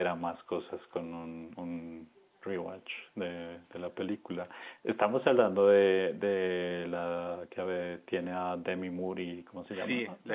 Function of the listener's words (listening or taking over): taking over